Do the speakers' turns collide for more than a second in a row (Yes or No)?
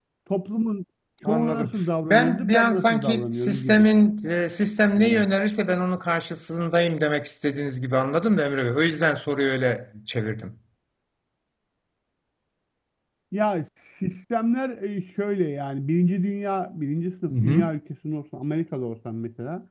Yes